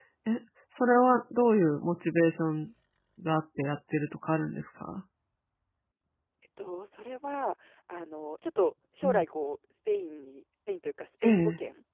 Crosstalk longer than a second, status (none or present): none